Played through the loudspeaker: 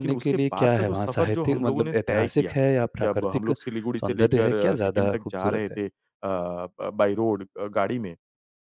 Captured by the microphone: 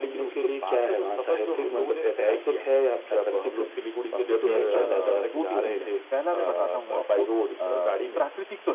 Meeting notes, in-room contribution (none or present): present